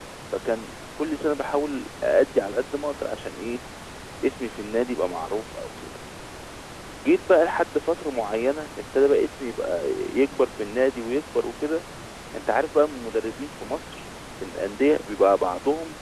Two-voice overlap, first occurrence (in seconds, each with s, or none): none